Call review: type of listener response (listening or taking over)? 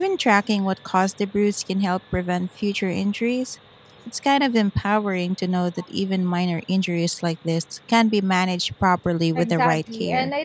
taking over